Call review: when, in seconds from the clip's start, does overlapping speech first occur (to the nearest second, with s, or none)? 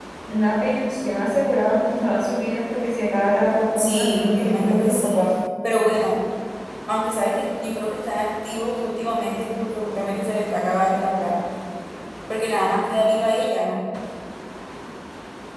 4 s